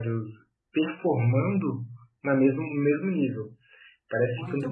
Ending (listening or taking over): listening